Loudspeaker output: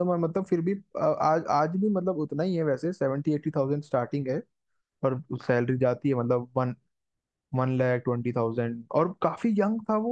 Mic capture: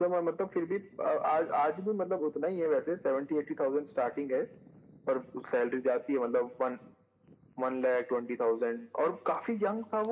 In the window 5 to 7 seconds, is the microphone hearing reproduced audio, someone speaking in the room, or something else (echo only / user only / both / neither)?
echo only